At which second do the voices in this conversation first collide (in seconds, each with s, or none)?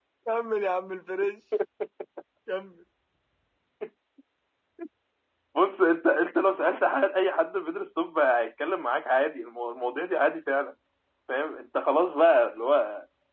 none